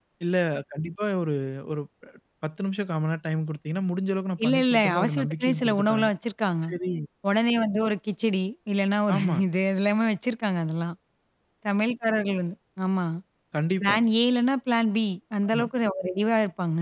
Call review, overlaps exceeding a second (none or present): present